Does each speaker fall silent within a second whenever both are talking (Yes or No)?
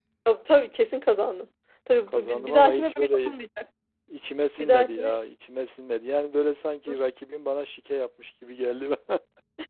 No